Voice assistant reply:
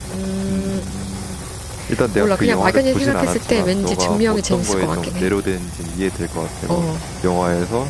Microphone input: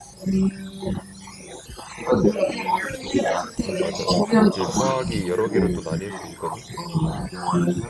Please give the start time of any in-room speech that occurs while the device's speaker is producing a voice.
3.7 s

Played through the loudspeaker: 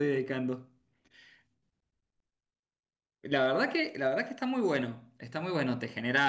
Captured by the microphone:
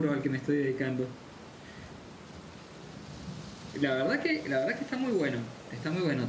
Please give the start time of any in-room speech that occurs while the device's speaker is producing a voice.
none

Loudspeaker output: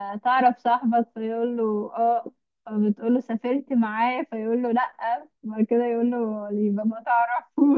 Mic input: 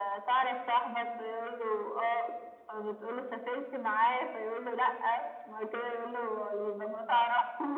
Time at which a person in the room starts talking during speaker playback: none

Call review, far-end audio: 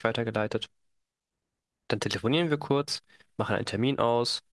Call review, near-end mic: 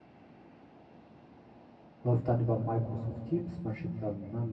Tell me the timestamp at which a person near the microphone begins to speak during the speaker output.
2.0 s

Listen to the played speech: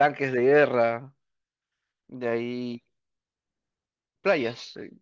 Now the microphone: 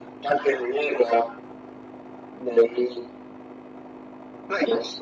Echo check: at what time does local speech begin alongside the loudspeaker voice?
none

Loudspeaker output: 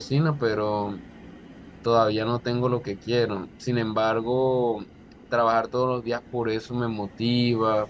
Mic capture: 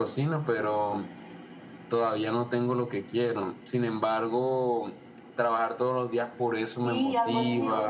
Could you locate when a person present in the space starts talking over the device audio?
6.8 s

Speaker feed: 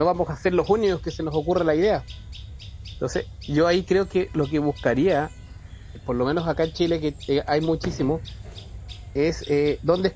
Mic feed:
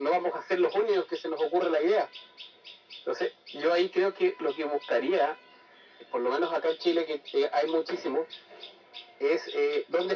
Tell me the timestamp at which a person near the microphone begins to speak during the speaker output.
none

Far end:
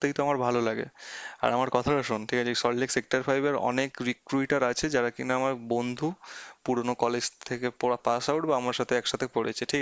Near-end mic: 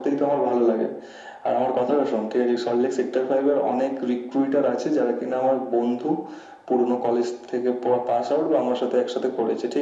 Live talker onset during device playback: none

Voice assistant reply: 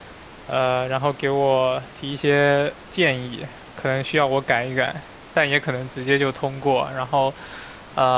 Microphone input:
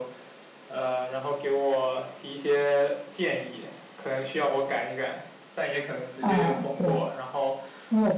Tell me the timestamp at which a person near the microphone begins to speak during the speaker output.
6.2 s

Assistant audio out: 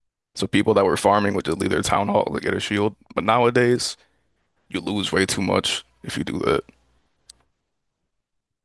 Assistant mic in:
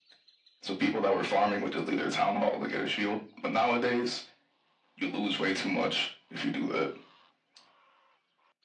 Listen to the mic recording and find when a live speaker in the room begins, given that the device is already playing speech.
none

